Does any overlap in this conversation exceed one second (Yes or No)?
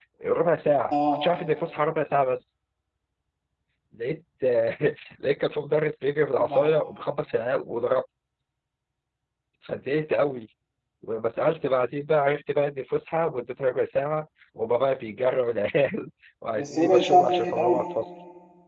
Yes